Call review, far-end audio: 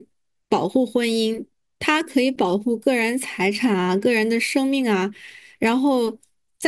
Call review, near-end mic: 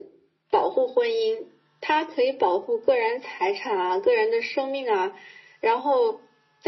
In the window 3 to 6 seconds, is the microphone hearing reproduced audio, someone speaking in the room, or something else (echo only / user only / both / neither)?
echo only